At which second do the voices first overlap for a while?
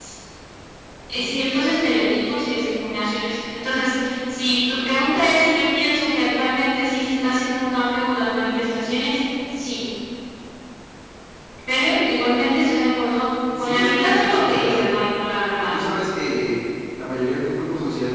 14 s

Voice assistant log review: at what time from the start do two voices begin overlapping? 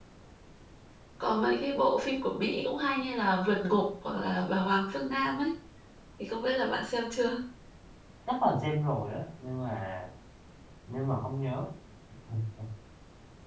none

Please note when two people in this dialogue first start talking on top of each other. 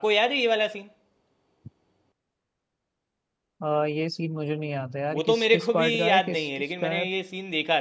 5 s

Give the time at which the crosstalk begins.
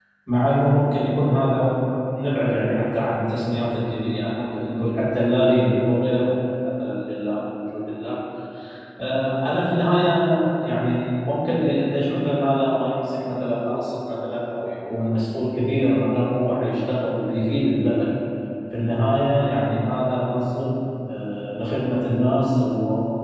none

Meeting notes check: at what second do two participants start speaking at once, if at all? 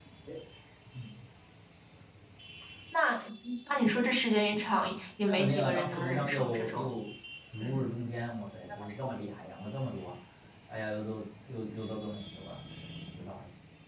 5 s

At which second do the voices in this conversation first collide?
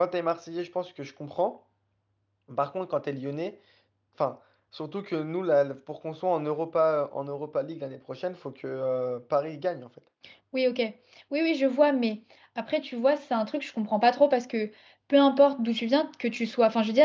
none

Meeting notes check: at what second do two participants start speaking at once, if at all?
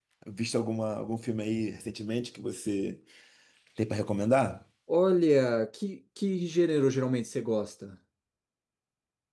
none

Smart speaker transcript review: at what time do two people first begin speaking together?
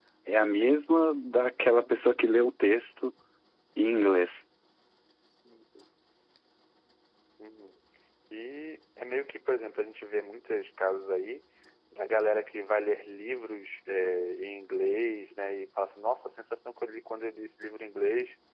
none

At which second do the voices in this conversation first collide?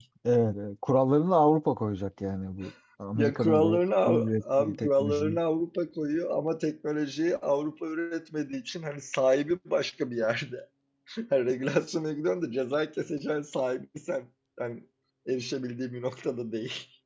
3 s

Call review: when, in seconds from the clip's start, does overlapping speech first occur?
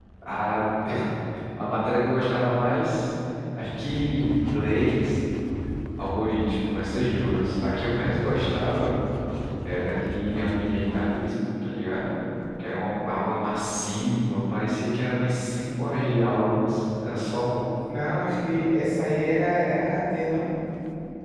none

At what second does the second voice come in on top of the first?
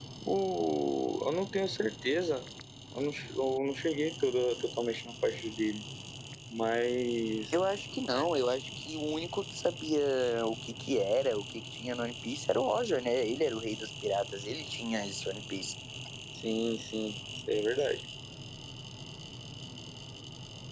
none

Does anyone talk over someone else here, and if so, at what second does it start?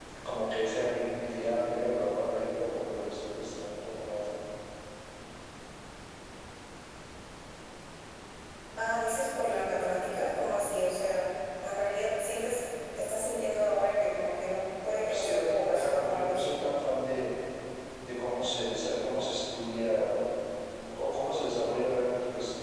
15 s

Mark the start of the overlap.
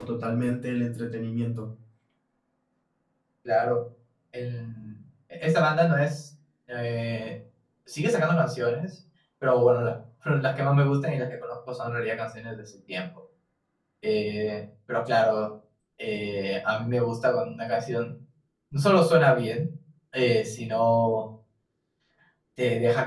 none

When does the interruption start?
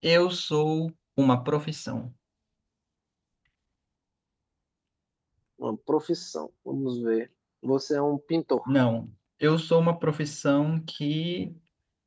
none

